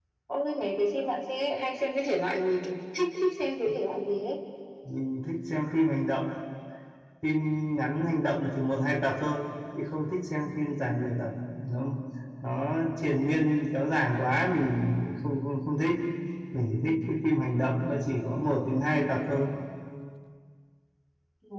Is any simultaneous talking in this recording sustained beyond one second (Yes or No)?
No